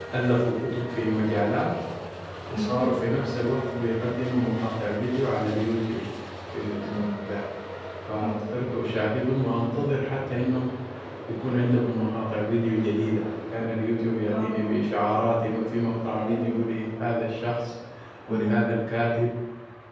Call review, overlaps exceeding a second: none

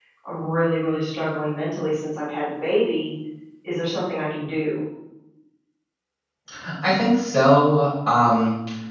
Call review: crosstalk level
none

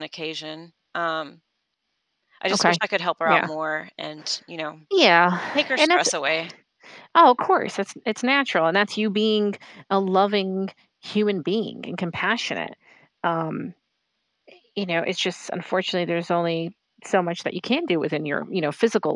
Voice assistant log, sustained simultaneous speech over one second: none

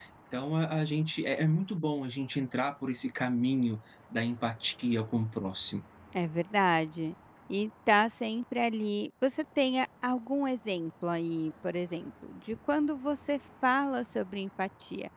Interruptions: none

